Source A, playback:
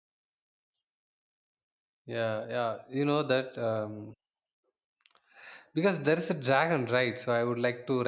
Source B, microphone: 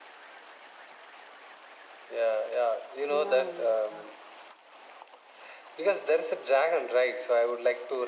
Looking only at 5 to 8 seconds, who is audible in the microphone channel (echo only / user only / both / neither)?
echo only